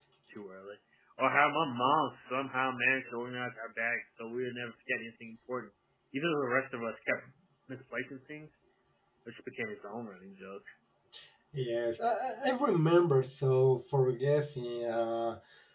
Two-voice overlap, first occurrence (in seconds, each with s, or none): none